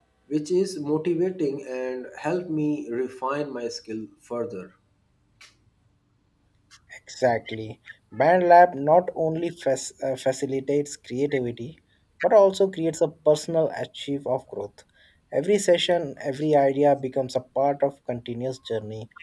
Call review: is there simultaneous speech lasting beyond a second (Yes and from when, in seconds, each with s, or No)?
No